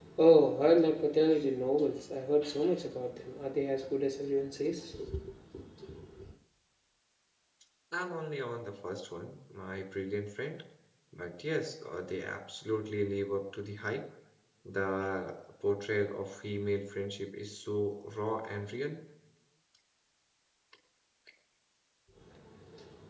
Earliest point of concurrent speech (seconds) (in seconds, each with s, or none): none